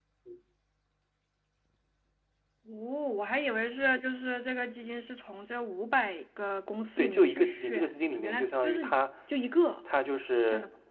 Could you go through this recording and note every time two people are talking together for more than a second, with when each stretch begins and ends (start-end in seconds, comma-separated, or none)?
7.0-8.8